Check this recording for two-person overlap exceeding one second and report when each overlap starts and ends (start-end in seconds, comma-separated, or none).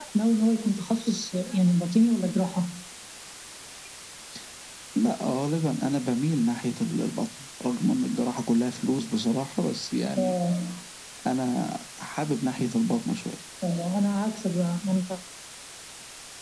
none